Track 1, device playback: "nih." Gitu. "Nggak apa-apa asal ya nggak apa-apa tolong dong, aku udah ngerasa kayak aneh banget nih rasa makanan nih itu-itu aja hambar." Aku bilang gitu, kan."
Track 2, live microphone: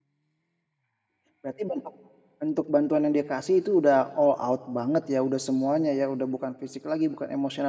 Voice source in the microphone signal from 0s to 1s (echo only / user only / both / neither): neither